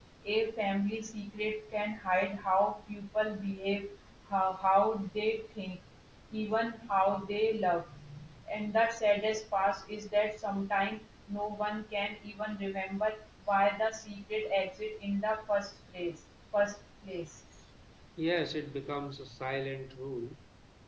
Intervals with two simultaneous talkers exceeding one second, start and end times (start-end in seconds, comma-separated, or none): none